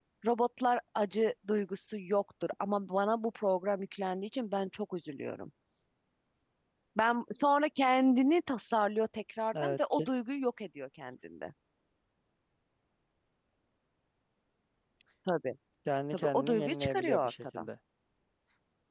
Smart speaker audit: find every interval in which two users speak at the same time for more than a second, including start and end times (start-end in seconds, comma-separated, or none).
16.1-17.7